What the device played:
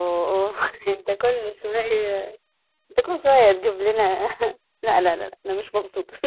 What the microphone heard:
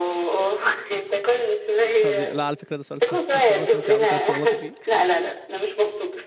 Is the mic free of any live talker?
No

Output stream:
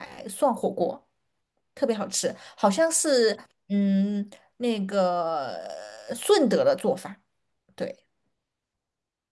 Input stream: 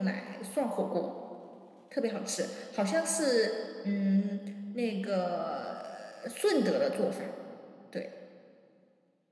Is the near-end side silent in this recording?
Yes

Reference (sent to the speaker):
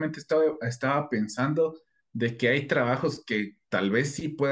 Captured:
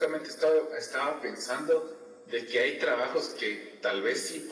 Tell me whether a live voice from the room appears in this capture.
No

